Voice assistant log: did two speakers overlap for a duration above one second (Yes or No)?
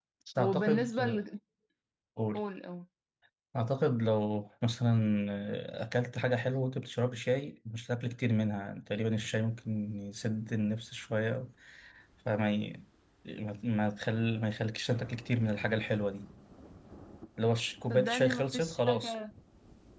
Yes